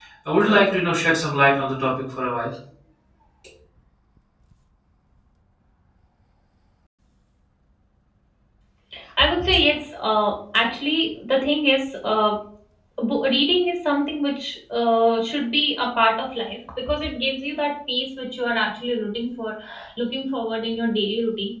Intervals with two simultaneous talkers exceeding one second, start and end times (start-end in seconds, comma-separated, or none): none